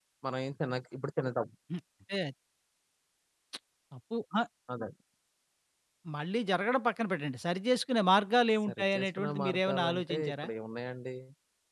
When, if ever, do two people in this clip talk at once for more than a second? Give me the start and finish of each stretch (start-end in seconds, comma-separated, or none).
8.7-10.5